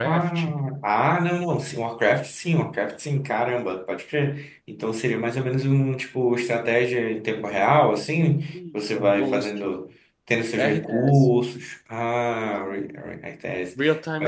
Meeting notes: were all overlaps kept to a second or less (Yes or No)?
No